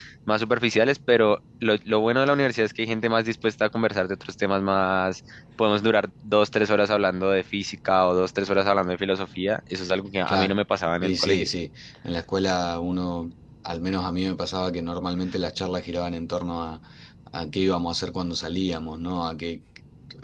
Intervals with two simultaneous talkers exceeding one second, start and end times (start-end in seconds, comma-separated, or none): none